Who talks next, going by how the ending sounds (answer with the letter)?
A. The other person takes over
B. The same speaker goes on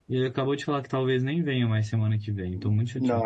A